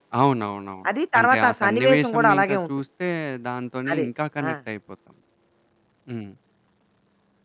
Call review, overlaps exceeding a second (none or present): present